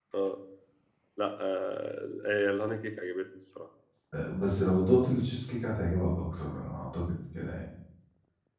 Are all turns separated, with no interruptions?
Yes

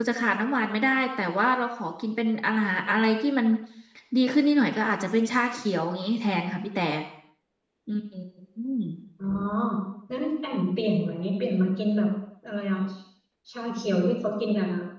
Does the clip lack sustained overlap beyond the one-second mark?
Yes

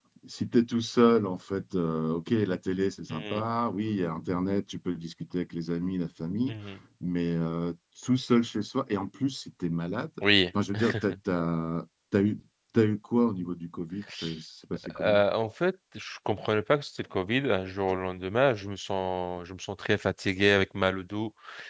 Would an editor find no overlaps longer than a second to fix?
Yes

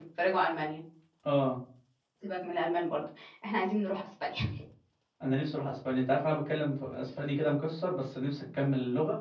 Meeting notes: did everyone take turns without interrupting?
Yes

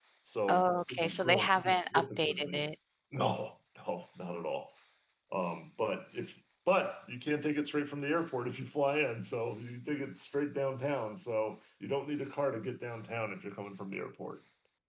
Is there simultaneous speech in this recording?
Yes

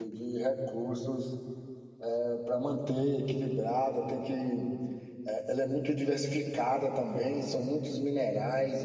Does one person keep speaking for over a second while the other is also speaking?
No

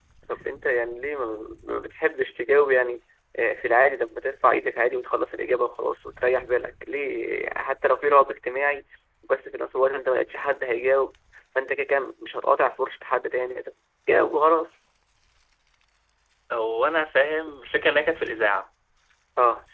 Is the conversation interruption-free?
Yes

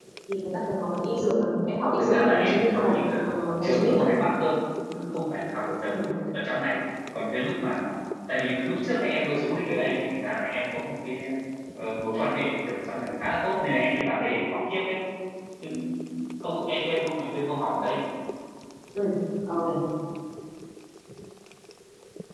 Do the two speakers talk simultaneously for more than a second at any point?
Yes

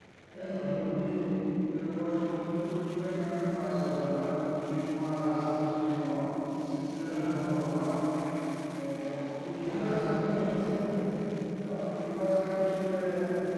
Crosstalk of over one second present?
Yes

